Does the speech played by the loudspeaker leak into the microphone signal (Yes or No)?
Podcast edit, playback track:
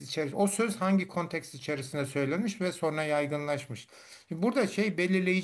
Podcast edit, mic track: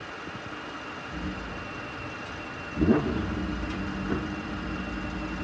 No